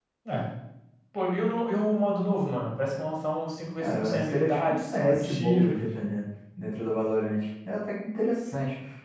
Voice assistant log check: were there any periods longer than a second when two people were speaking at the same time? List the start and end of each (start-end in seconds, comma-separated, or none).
3.8-5.7